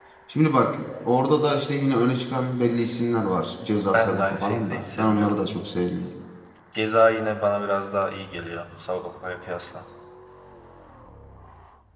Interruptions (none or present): present